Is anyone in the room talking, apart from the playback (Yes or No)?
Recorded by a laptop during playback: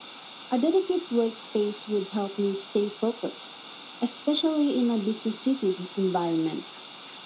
No